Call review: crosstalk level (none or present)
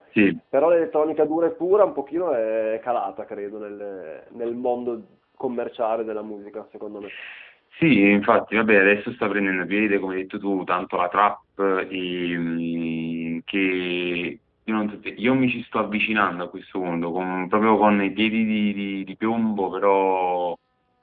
none